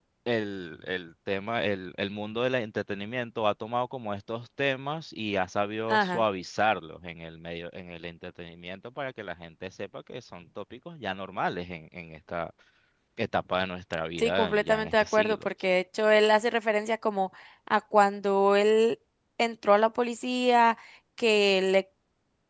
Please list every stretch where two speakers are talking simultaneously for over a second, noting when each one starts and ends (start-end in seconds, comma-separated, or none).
14.2-15.5